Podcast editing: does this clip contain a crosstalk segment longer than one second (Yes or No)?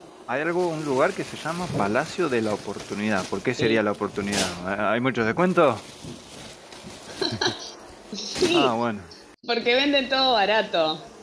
No